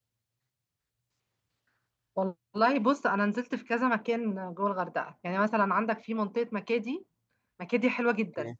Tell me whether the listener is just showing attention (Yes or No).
Yes